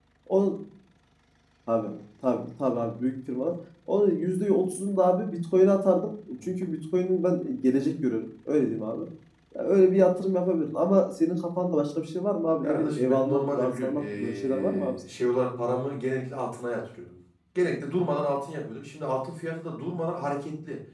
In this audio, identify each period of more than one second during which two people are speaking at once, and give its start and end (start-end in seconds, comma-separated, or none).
12.6-15.0